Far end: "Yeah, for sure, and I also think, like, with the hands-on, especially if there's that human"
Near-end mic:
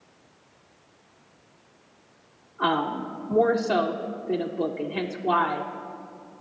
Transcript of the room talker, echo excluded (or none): um, more so than a book, and hence why